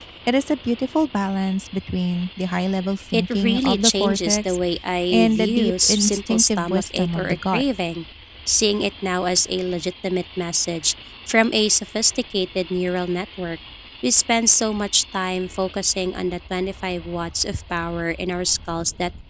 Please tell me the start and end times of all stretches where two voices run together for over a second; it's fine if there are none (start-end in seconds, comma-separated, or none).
3.1-4.6, 5.1-7.6